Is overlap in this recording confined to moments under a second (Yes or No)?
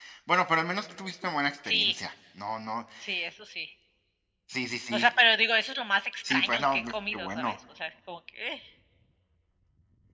No